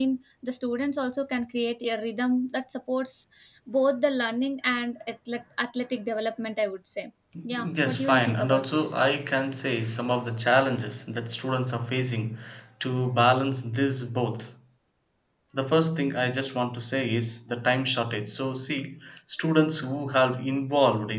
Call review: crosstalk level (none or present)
present